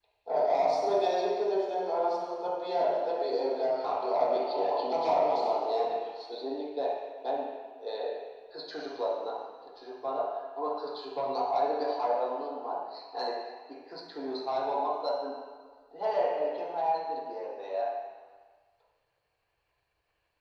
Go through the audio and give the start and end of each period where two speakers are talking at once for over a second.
3.8-5.7

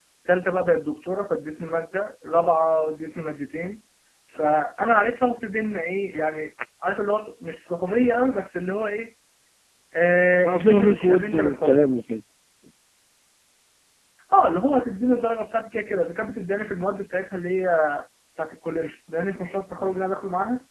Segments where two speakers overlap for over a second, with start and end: 10.4-11.8

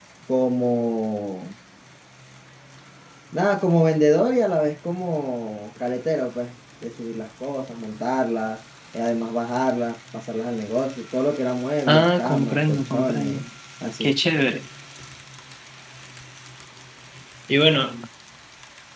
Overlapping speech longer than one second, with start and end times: 11.9-13.4

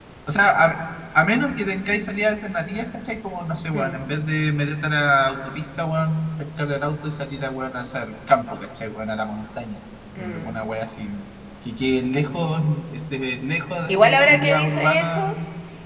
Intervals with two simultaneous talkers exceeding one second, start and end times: 13.9-15.3

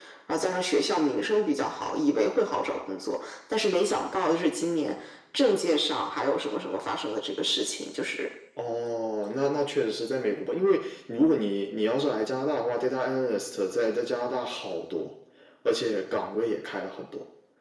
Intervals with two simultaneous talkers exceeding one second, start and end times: none

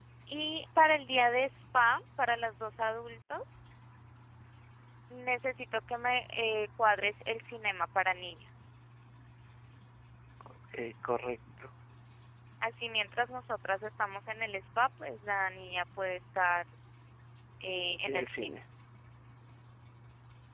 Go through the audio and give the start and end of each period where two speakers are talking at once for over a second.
none

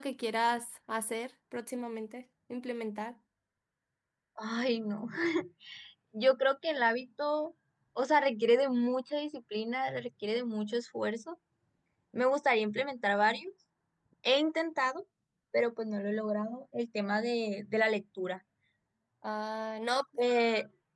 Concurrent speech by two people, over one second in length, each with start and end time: none

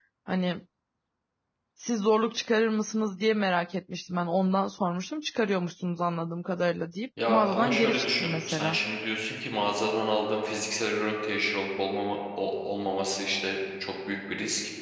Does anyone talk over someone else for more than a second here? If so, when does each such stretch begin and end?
7.3-8.8

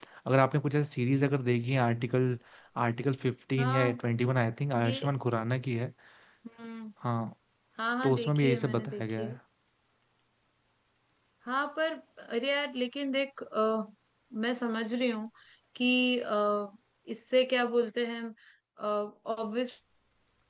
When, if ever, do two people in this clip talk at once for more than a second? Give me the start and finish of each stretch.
8.0-9.4

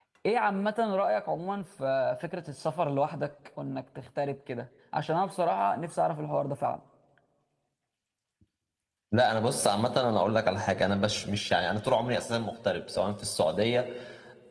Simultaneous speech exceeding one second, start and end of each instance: none

